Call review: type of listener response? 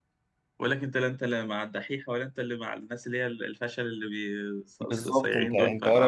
taking over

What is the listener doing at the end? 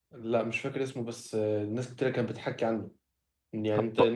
listening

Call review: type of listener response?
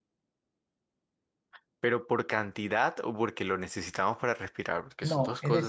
taking over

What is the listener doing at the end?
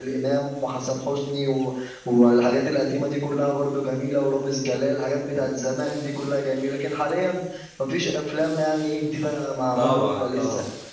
taking over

